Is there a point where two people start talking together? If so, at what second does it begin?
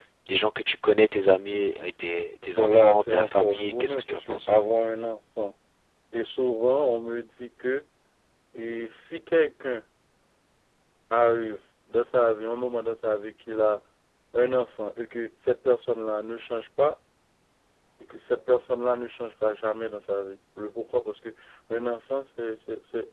2.6 s

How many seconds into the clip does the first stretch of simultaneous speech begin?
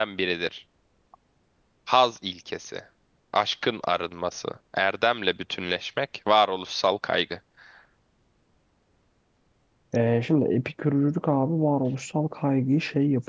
none

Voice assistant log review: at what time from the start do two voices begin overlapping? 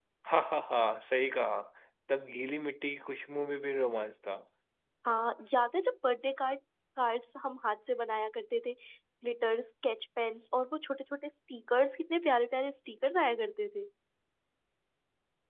none

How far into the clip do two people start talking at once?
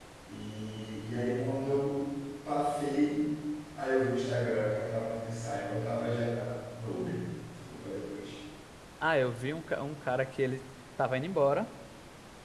none

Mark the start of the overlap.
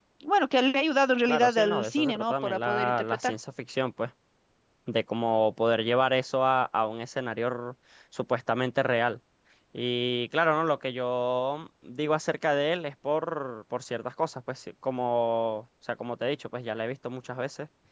1.3 s

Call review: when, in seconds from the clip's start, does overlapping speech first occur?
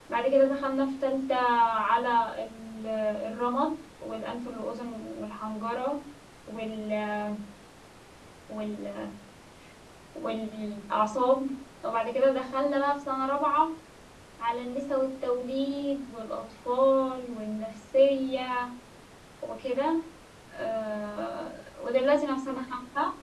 none

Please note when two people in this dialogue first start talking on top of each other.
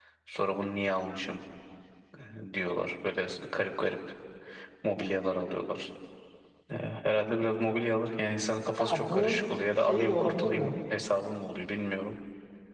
8.8 s

